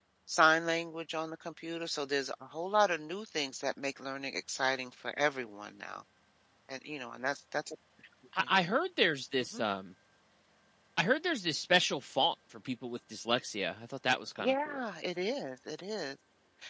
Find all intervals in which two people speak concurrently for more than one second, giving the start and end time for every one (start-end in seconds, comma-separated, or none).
none